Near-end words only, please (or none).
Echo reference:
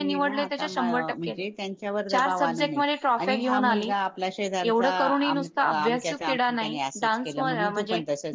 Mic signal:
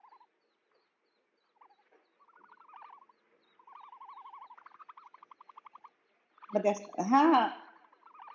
मग त्या हा